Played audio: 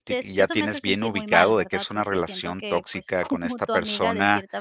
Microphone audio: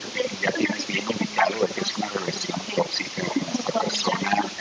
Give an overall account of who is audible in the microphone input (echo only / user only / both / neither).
echo only